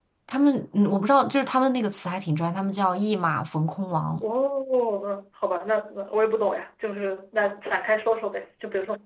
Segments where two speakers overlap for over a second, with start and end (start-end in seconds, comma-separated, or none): none